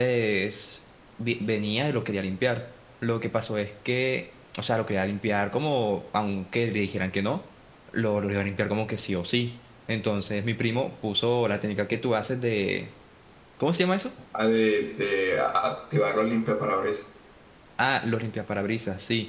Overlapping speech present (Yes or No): No